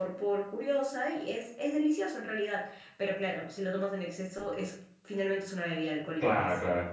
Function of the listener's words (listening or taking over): taking over